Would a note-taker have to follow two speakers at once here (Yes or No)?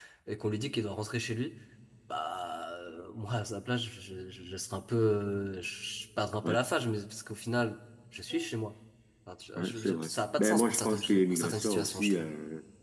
Yes